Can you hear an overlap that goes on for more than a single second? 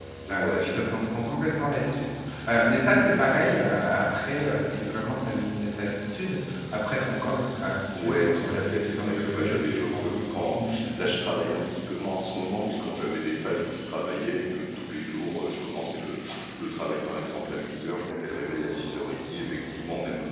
Yes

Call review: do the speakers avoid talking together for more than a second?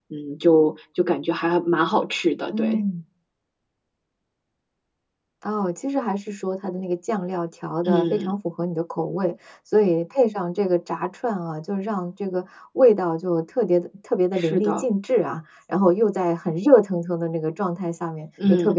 Yes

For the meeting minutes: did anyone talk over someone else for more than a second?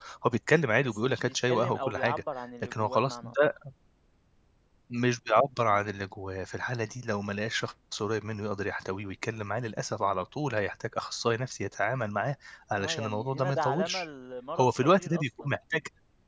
Yes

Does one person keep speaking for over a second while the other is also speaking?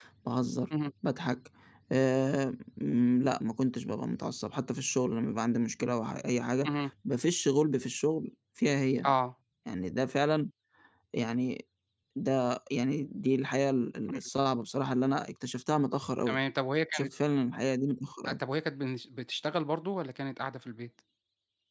No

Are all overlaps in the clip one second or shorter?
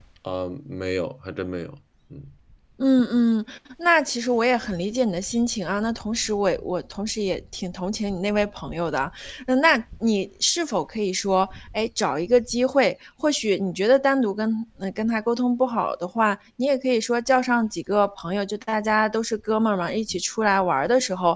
Yes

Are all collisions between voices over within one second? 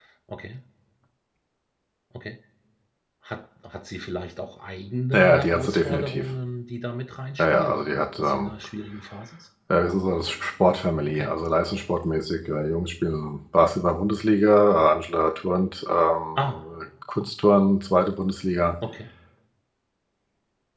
No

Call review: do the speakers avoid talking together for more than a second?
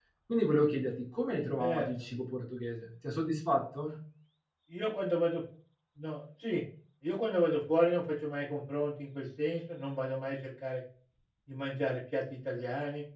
Yes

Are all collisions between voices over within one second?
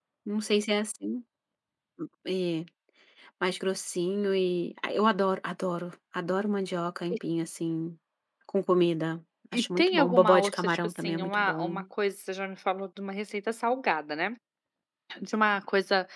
No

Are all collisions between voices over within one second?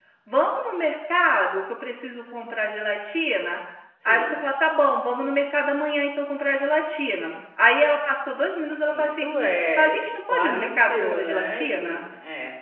No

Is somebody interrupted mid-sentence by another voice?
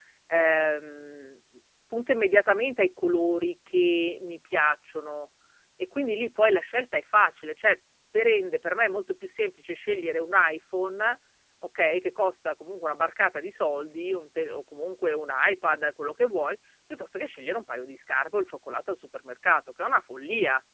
No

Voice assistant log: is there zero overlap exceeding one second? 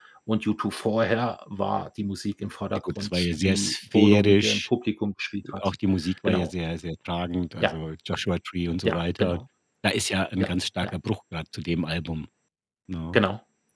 No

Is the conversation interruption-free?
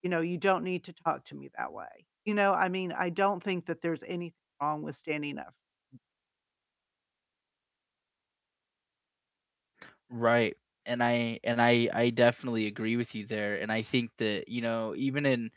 Yes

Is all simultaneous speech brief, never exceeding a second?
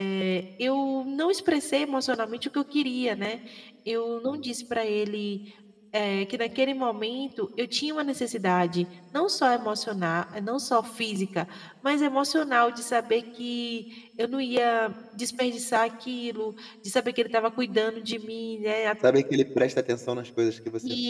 Yes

